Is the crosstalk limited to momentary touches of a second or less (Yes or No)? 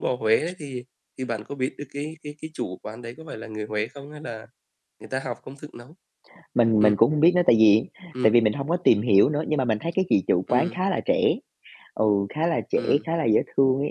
Yes